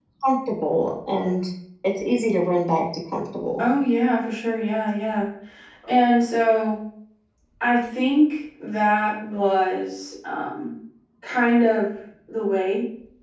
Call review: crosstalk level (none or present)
none